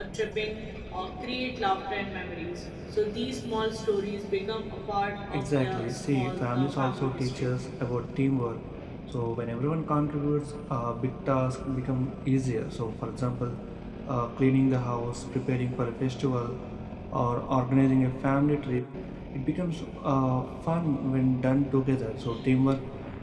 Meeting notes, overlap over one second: present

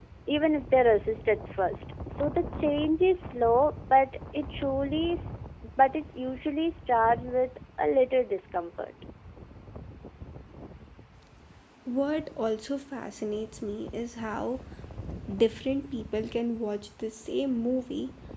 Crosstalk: none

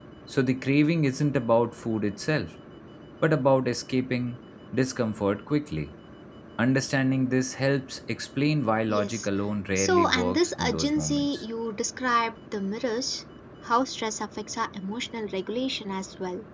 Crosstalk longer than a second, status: present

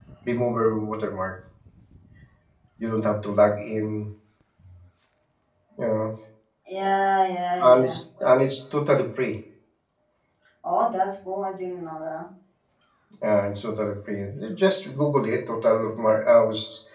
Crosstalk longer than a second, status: none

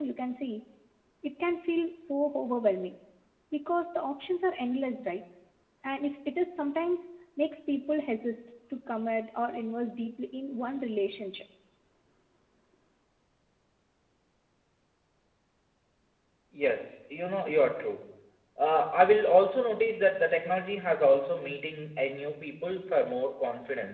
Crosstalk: none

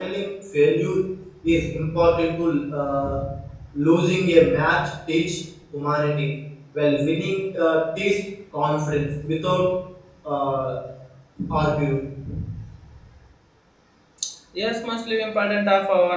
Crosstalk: none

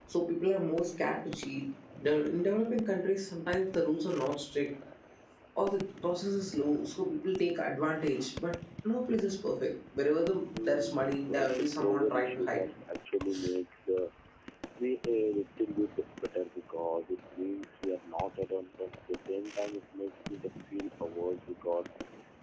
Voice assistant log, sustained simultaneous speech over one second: present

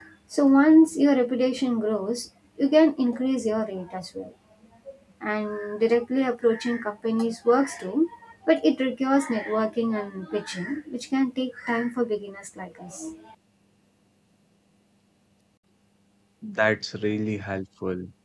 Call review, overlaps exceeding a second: none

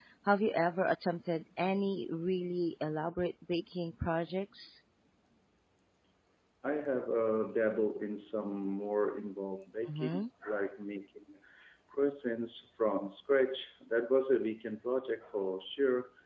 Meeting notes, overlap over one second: none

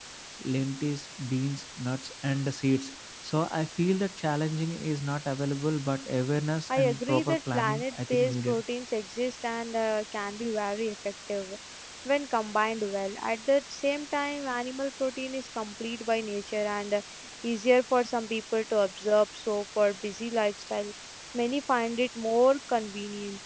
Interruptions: present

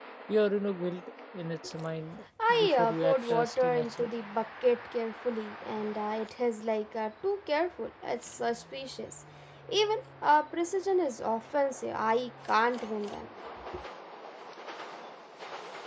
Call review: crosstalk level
present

